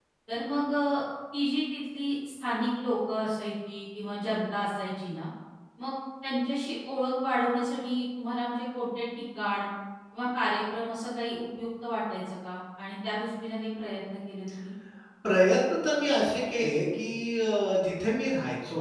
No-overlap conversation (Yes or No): Yes